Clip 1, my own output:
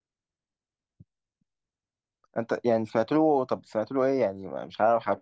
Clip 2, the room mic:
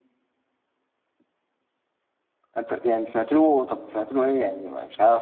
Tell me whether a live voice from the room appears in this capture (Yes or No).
No